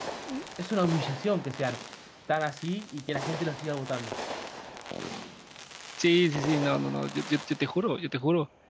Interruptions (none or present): none